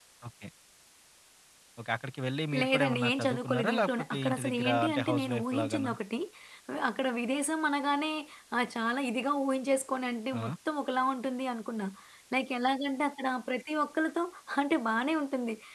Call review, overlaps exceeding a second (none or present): present